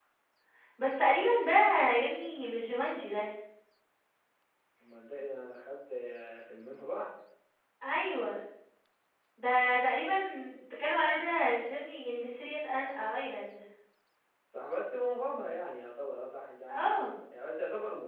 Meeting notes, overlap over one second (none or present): none